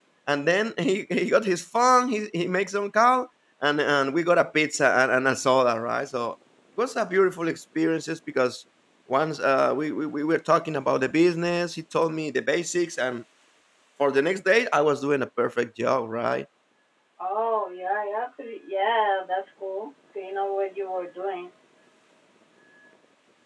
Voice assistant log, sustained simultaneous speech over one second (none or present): none